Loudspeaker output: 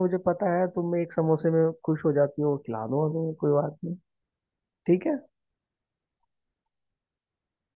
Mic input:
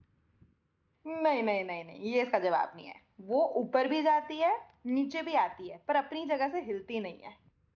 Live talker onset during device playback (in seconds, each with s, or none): 1.1 s